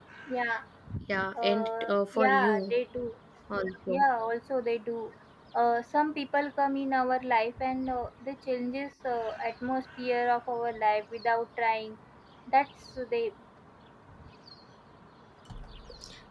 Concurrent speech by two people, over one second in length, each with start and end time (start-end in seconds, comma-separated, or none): 1.4-2.7